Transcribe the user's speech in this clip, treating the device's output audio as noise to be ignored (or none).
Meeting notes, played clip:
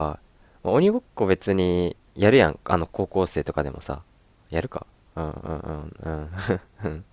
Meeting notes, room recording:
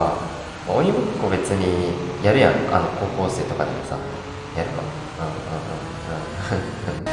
none